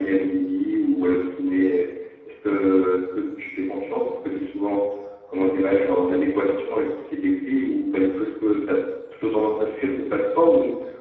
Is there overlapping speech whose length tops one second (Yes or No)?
No